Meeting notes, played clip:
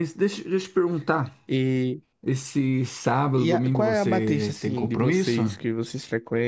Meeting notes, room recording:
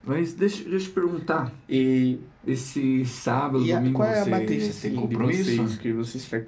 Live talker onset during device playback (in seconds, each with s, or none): none